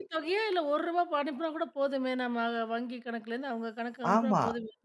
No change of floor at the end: No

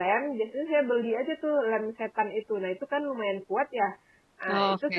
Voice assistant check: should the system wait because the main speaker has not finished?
Yes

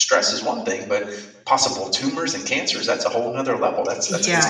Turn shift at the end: Yes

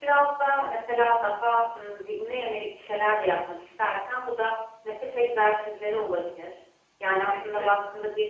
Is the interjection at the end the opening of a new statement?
No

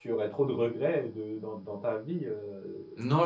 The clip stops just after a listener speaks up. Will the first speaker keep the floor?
No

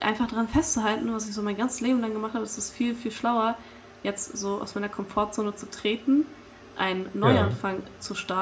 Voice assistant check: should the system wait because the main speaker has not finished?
Yes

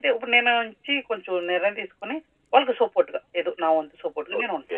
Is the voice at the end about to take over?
Yes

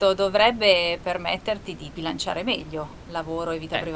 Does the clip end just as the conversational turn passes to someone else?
Yes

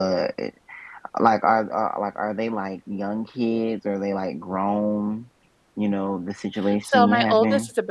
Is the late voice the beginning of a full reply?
Yes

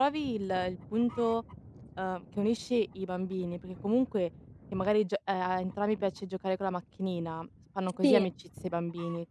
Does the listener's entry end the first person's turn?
No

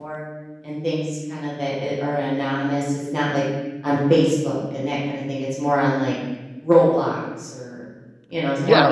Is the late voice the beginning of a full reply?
Yes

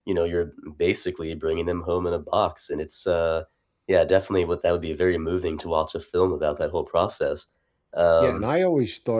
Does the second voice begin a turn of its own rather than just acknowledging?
Yes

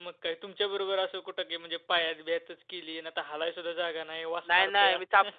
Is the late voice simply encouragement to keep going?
No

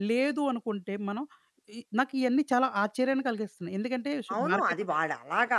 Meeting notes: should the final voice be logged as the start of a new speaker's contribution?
Yes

